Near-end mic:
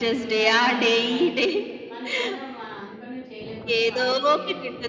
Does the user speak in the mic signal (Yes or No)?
Yes